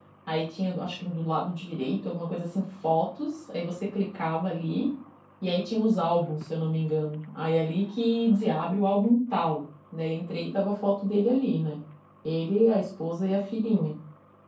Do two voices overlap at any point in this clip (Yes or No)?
No